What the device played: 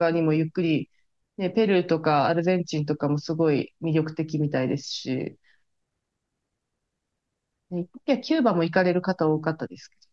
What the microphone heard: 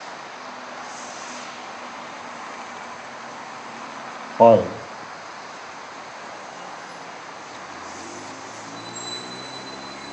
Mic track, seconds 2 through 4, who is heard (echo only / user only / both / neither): neither